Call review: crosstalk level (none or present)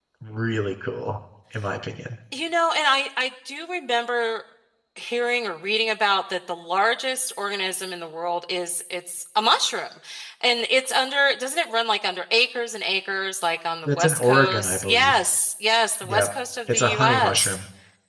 present